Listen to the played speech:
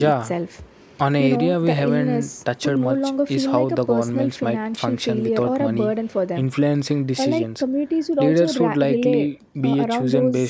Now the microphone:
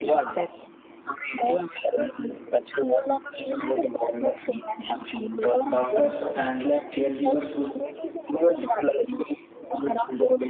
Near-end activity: present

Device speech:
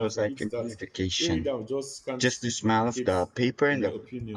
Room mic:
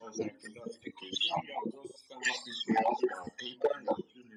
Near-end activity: none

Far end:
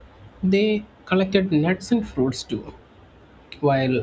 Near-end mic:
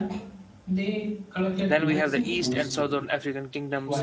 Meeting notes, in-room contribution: present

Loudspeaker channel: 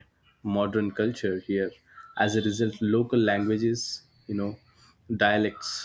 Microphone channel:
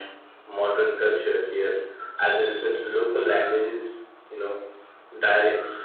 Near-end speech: none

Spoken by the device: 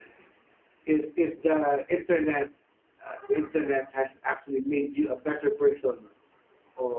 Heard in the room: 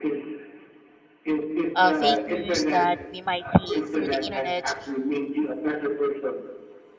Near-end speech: present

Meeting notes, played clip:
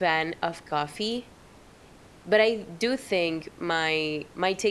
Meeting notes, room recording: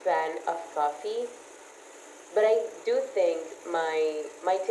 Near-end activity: none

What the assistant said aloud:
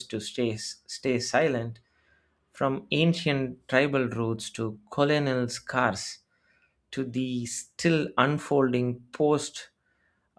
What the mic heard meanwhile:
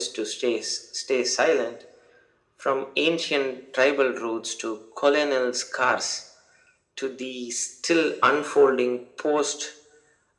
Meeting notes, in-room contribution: none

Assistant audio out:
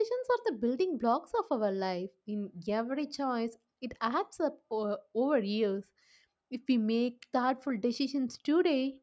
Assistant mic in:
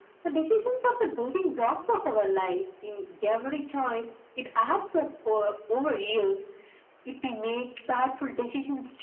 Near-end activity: none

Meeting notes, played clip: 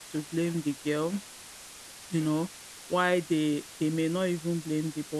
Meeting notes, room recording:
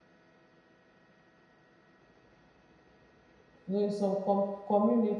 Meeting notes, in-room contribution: present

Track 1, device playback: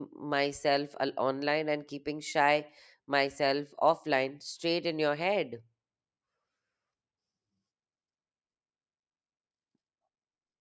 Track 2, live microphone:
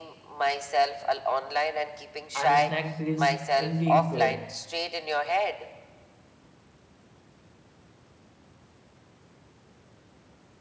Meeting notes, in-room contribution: present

